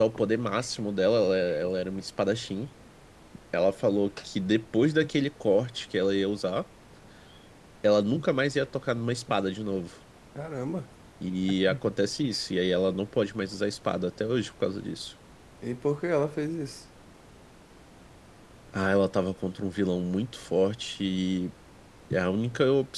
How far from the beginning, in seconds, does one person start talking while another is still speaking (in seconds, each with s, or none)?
none